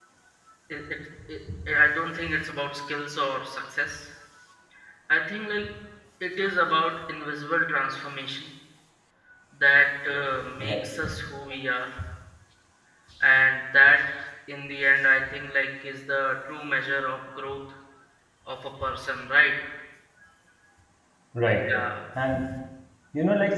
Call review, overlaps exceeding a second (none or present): none